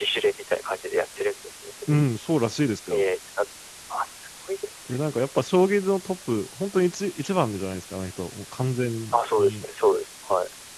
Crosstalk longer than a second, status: none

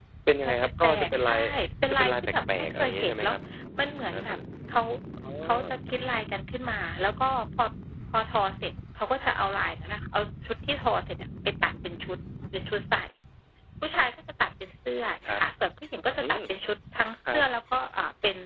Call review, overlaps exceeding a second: present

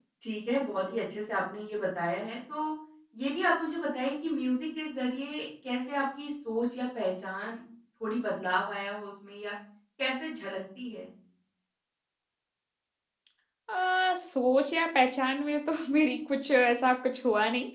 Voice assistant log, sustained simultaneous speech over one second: none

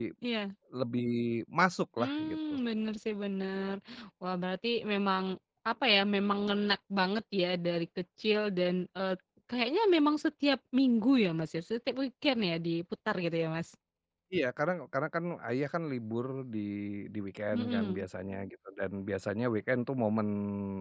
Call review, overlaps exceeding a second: none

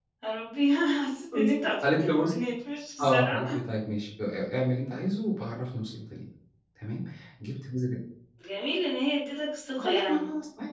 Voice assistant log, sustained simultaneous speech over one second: none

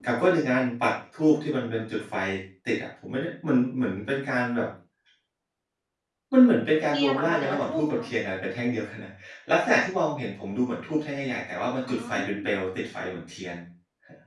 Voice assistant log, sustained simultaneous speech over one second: present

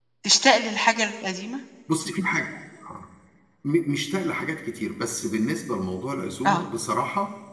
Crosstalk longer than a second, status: none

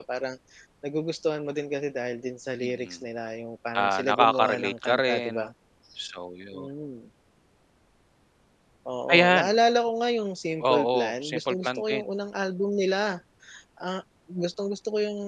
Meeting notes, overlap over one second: present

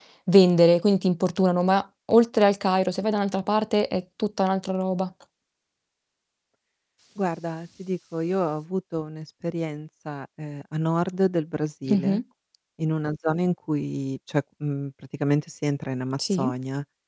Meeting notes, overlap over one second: none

